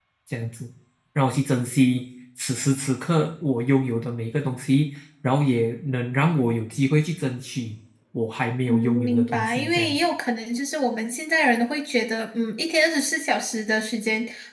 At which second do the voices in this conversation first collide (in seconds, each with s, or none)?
8.7 s